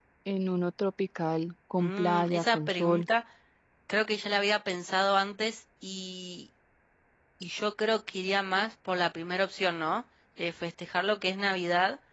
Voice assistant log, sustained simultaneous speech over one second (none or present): present